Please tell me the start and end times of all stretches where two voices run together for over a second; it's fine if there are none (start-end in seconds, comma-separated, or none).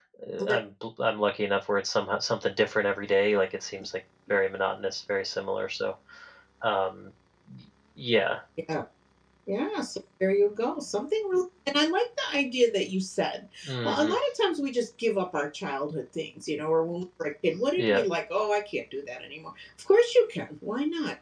none